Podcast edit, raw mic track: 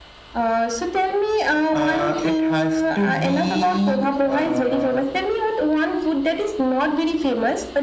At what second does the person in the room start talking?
none

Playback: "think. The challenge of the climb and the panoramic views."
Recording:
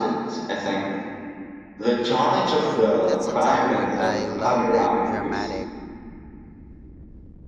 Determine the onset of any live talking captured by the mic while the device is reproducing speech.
3 s

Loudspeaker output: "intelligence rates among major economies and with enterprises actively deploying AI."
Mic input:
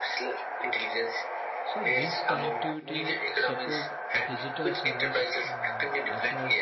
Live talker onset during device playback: 2 s

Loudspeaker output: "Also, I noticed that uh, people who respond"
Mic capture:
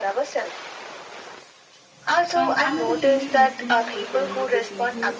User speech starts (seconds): 2 s

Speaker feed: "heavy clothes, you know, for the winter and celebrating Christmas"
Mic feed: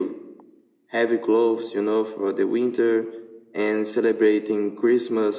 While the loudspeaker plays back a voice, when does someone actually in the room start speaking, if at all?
none

